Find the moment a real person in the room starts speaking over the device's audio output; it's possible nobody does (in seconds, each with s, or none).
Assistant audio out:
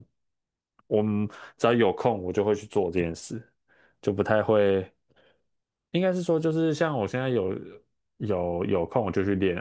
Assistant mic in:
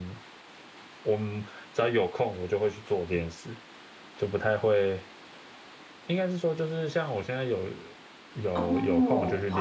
8.5 s